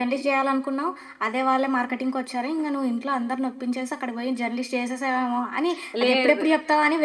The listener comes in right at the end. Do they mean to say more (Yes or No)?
No